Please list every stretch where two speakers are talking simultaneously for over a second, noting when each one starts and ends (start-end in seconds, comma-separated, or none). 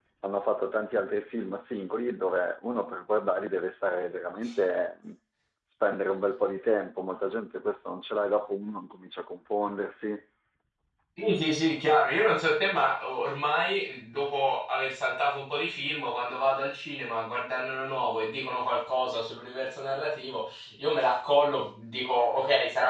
none